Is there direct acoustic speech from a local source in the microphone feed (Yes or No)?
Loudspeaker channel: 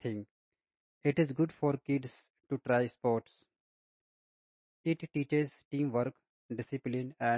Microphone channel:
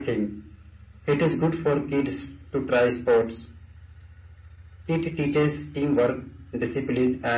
No